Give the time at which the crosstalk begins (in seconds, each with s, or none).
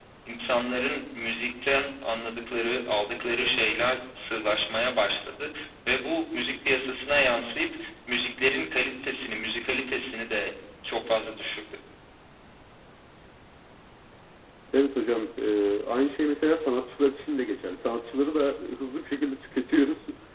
none